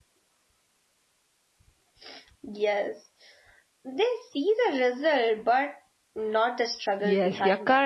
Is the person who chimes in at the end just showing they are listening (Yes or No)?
No